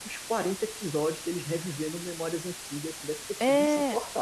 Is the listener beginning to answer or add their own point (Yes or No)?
Yes